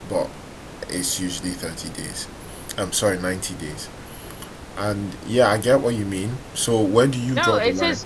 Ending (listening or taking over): taking over